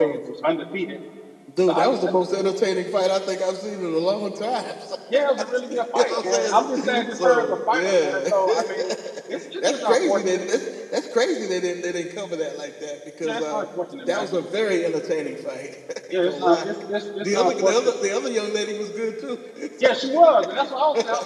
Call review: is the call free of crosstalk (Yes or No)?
No